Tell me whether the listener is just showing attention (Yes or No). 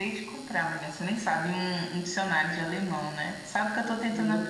Yes